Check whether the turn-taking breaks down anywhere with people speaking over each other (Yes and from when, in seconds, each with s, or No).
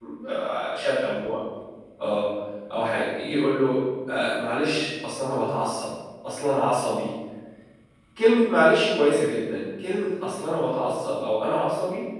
No